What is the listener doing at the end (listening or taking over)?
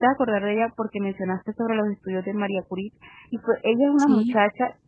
listening